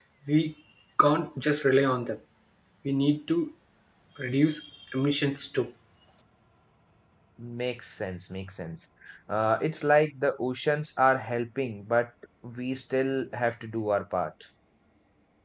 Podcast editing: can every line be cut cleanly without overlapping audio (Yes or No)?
Yes